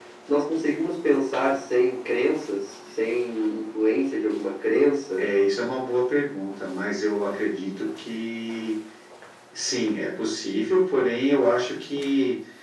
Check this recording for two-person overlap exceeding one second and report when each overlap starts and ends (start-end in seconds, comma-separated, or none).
none